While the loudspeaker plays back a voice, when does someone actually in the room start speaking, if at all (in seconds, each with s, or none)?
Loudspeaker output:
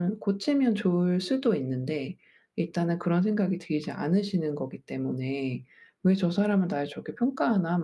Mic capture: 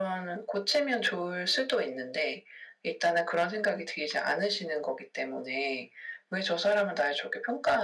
none